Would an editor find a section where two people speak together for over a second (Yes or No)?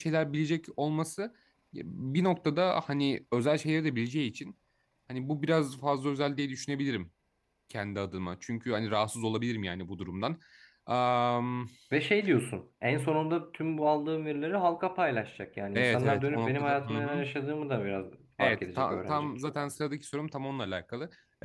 Yes